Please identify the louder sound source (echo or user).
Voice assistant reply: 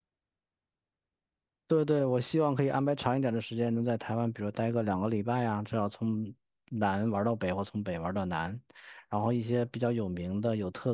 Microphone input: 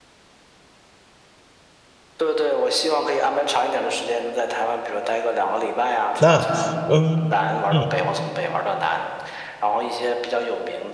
user